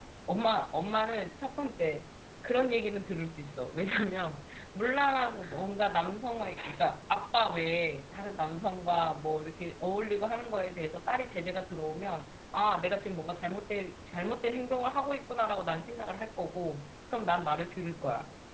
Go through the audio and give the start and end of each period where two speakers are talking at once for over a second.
none

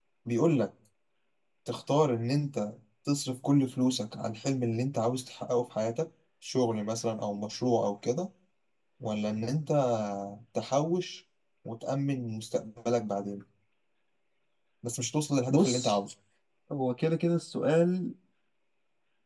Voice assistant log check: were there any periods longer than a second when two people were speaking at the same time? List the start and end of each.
none

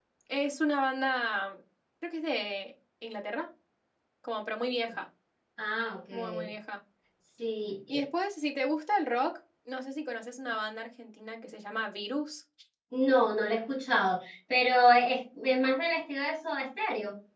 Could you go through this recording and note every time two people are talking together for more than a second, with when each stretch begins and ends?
none

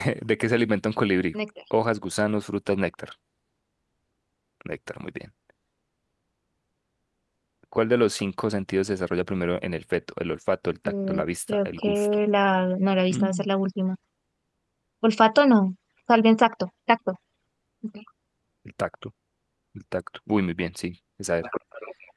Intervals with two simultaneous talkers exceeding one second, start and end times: 10.8-12.1

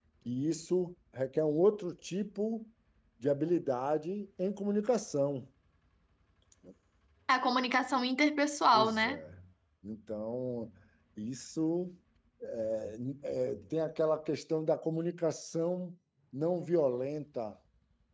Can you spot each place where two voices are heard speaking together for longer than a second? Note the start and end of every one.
none

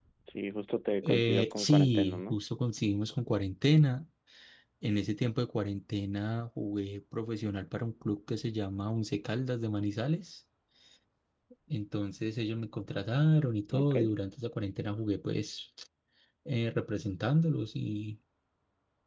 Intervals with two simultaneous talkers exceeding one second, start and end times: 1.0-2.4

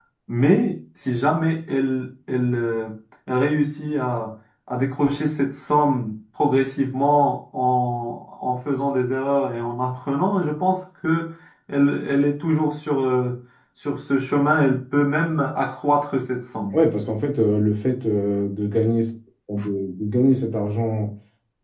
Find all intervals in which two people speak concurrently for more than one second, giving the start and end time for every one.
none

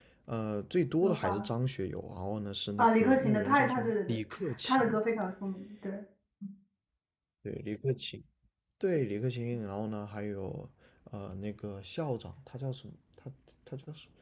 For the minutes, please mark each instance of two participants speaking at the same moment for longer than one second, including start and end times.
2.8-4.2

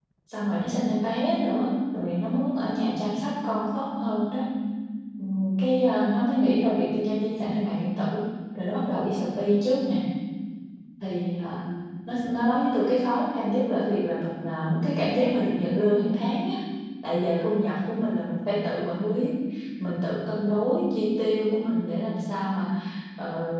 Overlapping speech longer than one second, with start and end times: none

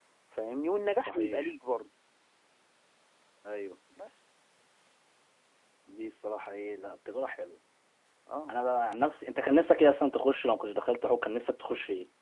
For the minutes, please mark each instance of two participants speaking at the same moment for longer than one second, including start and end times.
none

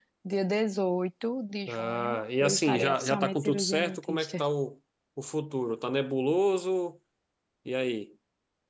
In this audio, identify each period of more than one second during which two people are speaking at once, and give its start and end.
1.7-4.4

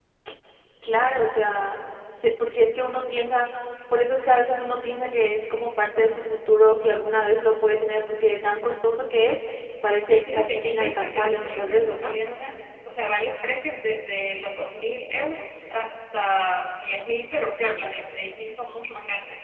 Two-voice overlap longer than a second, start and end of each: 10.0-12.1

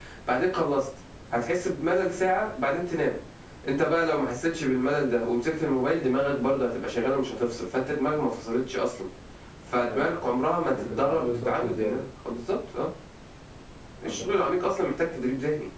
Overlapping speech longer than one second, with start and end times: 10.7-12.0

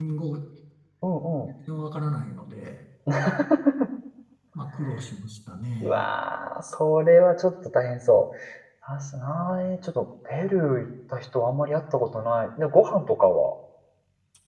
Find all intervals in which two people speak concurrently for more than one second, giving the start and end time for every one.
none

